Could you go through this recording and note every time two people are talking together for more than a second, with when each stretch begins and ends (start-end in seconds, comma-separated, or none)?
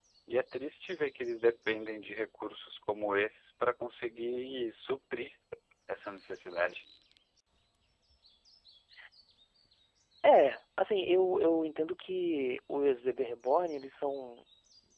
none